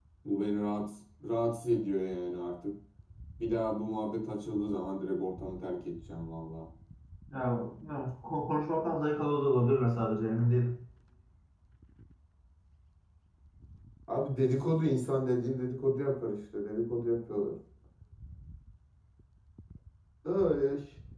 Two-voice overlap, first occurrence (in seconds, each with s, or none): none